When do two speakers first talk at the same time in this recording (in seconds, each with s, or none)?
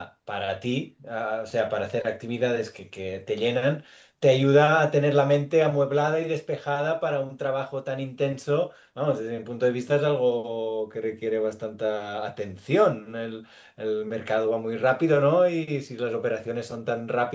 none